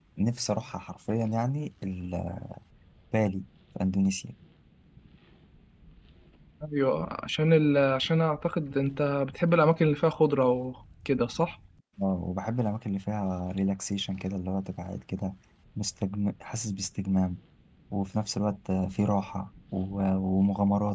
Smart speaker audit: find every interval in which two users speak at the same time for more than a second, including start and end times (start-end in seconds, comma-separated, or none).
none